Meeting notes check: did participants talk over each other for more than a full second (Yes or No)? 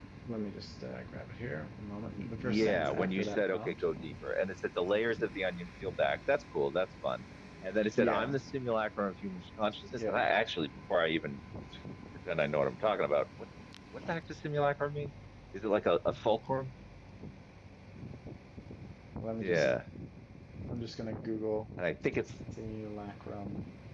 Yes